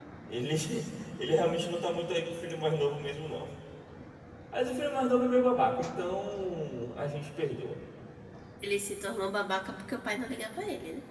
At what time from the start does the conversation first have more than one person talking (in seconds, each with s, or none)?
none